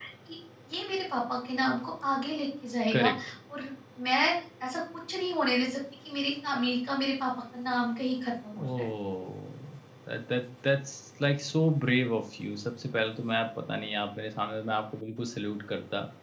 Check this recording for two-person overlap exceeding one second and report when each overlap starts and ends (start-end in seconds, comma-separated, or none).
none